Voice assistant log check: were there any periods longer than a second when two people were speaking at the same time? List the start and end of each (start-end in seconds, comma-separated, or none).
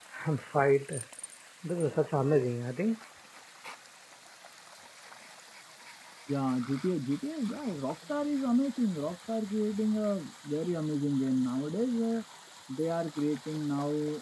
none